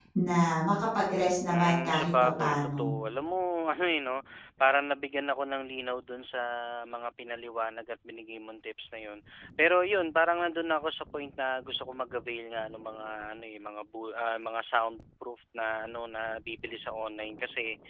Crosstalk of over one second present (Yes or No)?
Yes